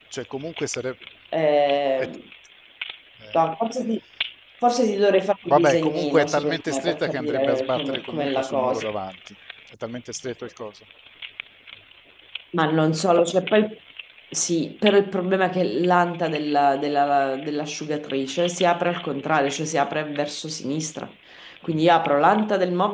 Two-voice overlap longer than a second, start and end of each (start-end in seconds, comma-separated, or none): 5.5-8.8